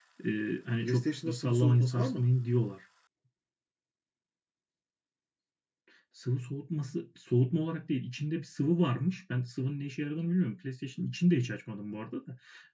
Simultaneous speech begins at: 0.8 s

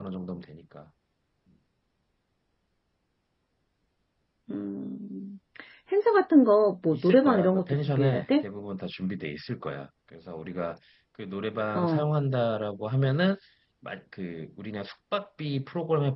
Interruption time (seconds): 6.9 s

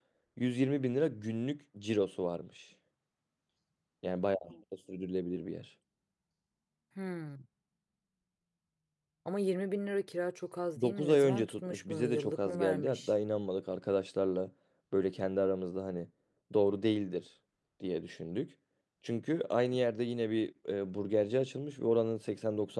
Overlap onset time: 10.8 s

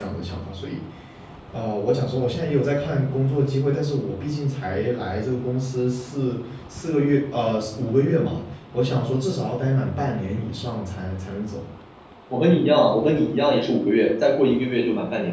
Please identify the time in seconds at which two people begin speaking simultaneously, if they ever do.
none

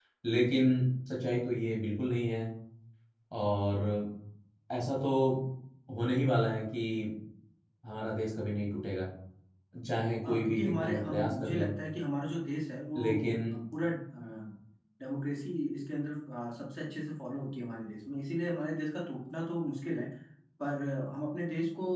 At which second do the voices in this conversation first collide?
10.2 s

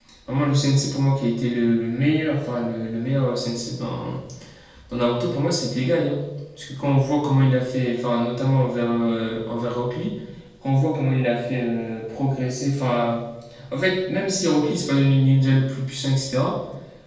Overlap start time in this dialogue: none

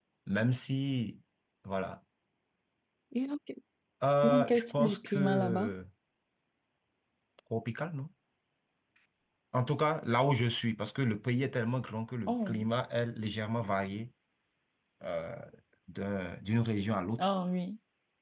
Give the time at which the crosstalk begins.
4.2 s

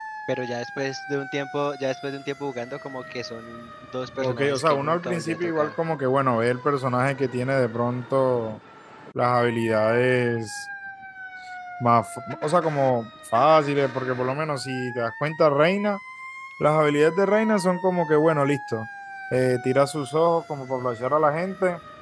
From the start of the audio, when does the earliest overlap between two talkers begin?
4.2 s

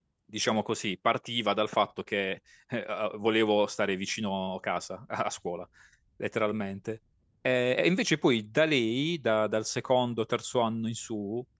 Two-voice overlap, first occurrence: none

